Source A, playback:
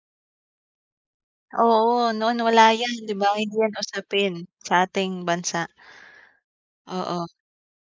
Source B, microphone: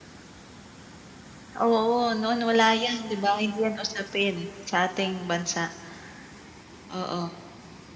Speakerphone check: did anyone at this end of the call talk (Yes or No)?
No